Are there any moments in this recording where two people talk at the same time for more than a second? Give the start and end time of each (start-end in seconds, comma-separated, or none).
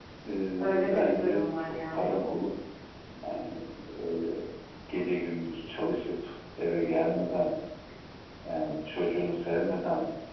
0.6-2.1